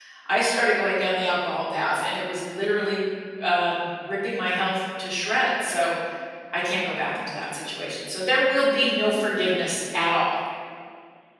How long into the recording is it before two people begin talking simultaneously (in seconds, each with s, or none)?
none